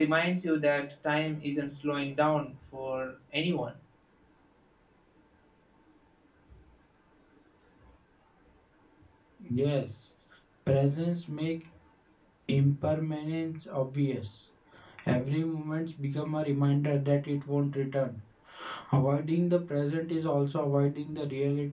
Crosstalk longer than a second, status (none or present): none